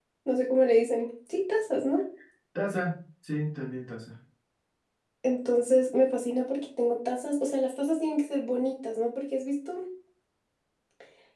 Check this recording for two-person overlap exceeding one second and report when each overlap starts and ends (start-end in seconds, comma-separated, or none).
none